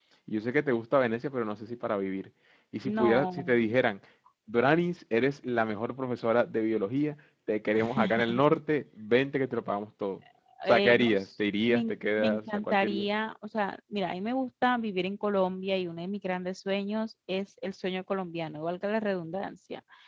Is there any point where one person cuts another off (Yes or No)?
Yes